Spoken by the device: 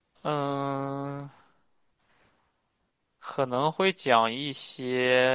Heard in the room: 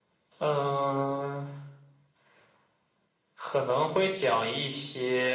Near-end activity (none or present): none